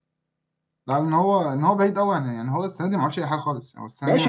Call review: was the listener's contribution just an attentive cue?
No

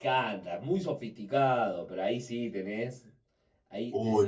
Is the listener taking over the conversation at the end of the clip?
No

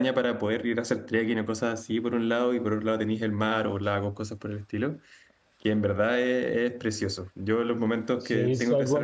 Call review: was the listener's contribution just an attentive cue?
No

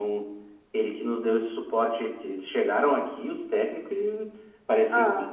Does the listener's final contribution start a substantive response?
No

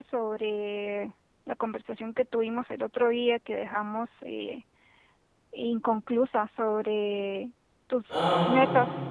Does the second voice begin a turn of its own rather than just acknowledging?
No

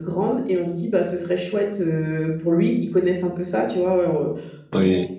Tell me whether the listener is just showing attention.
Yes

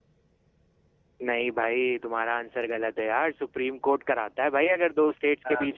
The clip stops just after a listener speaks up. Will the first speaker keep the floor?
Yes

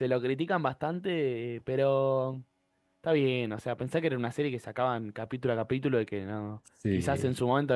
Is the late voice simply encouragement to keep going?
Yes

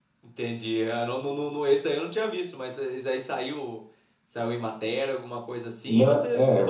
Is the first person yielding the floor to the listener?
Yes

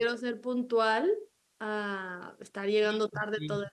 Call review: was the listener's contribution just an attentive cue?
No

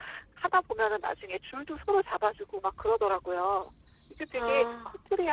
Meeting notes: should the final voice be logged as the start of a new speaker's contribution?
No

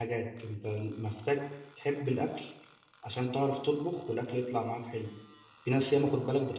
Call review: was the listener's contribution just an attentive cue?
Yes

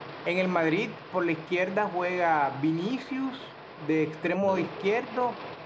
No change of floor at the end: Yes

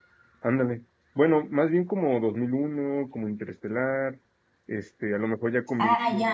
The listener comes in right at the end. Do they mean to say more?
Yes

